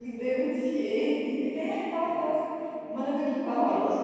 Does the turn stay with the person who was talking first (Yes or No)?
No